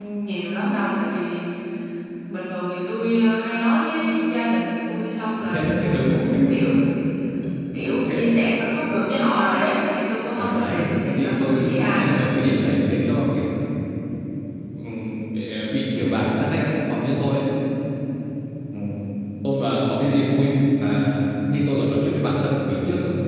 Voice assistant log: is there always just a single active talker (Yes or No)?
No